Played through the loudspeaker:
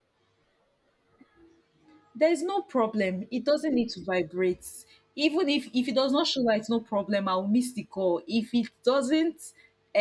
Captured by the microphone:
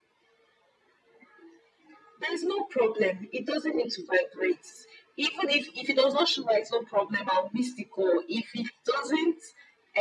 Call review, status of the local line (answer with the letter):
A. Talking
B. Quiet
B